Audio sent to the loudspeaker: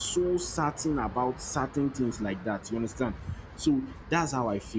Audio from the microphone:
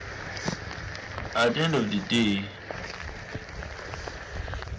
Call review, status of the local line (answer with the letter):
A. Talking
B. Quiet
A